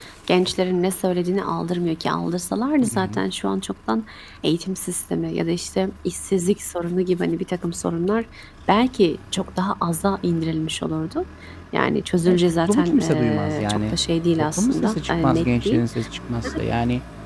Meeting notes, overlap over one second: present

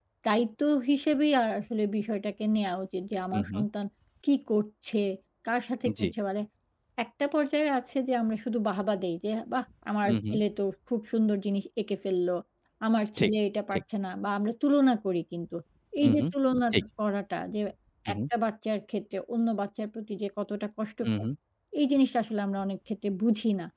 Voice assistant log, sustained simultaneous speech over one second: none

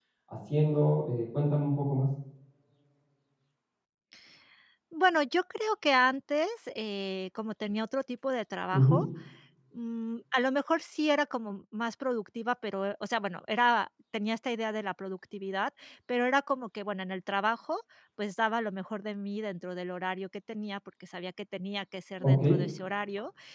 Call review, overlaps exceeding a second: none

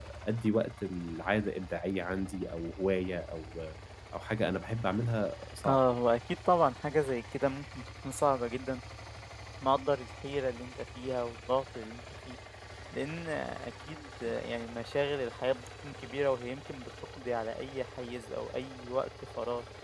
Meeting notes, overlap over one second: none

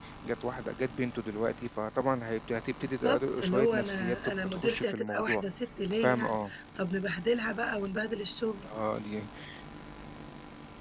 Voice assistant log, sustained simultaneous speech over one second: present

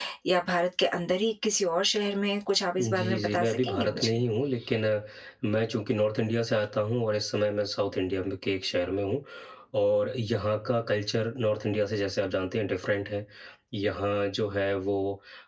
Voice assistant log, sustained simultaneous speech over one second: present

